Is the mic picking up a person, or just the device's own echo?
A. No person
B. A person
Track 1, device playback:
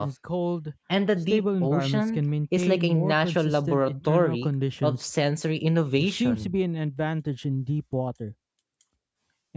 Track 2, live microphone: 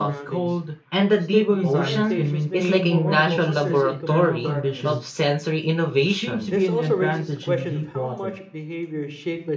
B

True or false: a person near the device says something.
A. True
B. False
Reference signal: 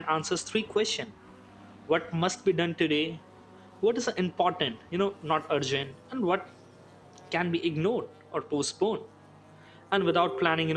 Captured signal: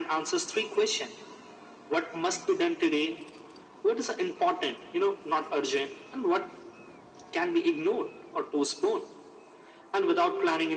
B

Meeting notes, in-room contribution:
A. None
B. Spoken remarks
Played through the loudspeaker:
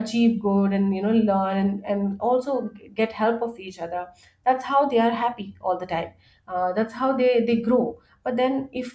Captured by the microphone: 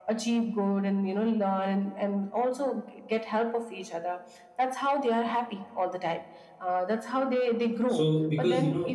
B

